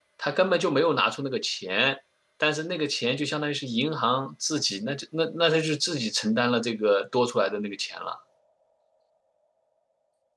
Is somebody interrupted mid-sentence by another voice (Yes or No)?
No